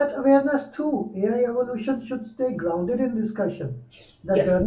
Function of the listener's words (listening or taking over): listening